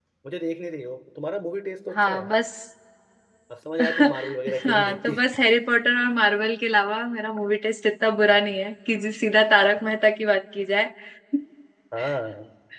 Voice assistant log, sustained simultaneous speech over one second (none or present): present